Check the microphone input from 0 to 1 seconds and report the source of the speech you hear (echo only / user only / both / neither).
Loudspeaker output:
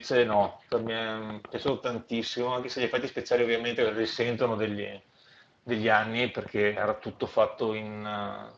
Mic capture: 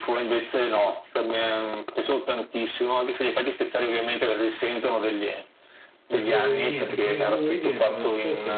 echo only